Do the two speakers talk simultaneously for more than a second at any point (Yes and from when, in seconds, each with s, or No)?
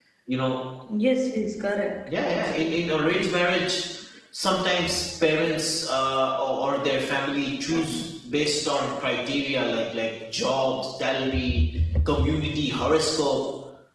No